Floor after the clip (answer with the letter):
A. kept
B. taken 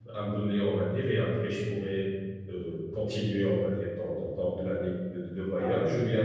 A